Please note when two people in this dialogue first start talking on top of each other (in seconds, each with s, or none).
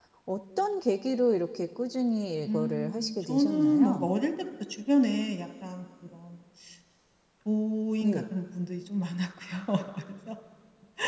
2.5 s